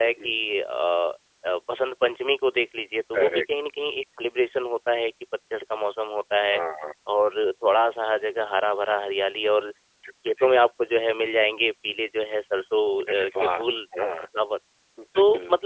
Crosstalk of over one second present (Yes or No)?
No